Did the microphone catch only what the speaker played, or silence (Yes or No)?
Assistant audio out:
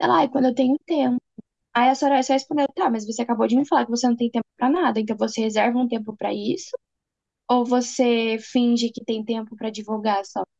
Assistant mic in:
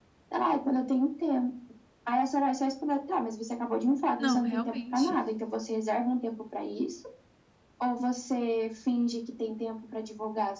No